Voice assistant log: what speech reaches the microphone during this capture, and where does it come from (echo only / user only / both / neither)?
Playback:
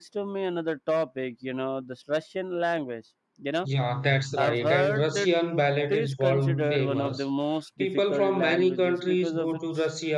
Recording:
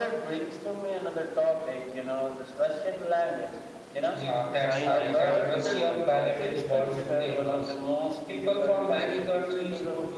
both